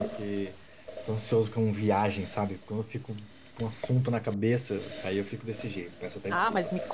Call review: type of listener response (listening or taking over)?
taking over